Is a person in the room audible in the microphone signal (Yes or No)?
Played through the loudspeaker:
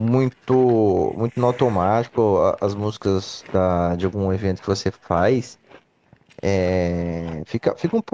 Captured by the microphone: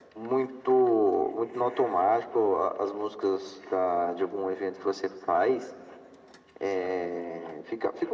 No